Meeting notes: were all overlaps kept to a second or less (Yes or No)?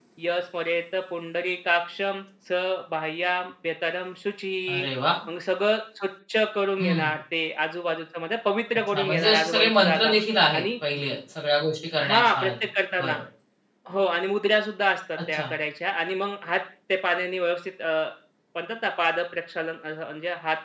No